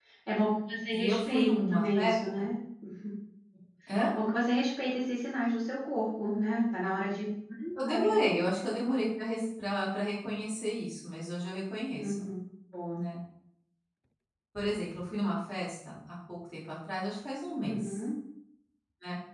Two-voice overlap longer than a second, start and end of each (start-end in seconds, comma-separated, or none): 0.9-2.4